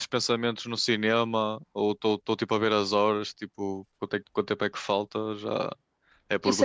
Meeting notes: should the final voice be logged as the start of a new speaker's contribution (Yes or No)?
Yes